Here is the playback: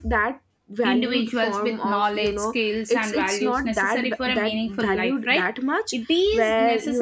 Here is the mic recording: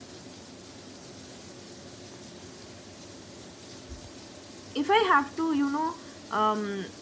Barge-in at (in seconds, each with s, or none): 4.7 s